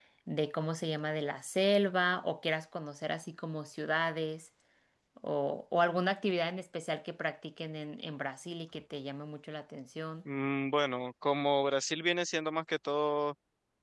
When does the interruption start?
none

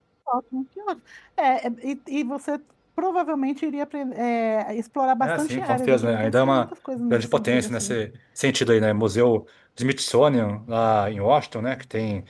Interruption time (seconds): 5.2 s

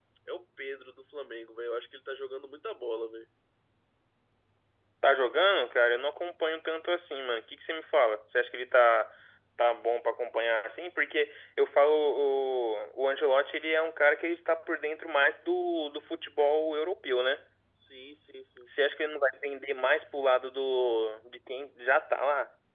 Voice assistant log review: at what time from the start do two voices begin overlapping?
none

